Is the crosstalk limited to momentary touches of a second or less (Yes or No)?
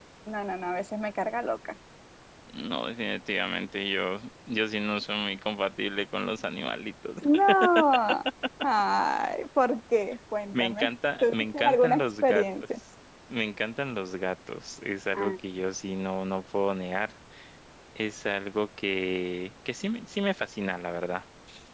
No